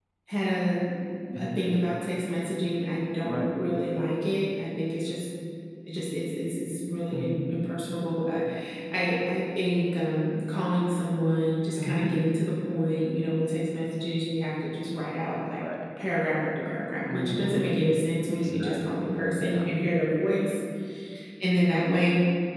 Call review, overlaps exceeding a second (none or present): present